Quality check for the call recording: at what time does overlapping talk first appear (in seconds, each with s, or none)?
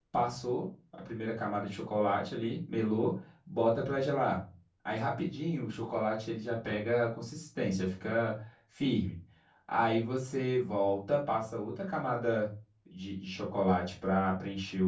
none